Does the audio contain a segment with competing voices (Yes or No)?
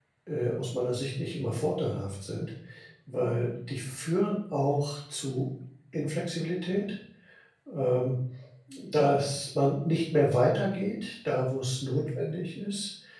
No